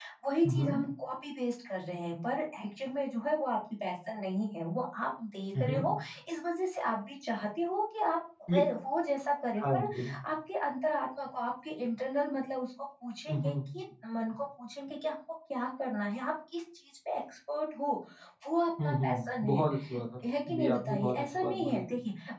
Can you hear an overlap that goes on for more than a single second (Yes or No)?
Yes